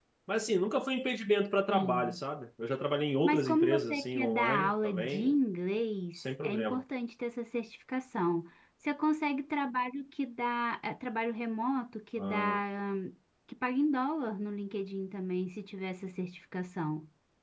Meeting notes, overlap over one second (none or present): present